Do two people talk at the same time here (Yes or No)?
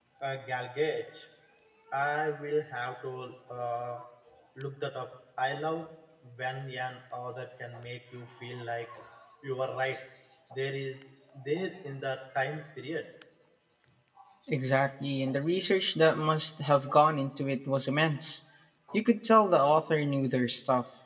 No